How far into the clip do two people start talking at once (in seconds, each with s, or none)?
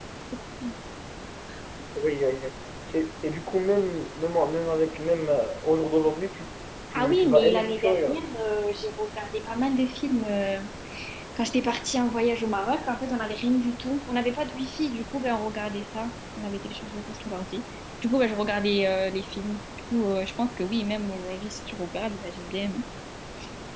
6.9 s